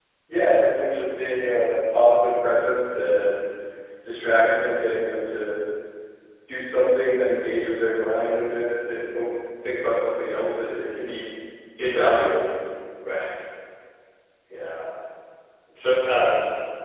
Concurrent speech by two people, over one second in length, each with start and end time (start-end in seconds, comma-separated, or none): none